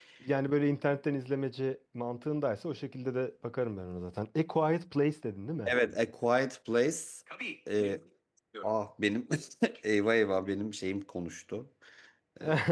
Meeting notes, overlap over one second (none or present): none